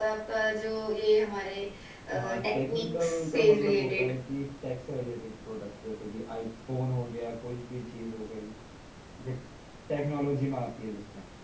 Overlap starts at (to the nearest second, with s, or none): 2 s